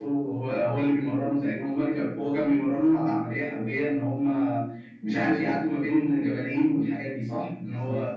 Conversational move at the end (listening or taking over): taking over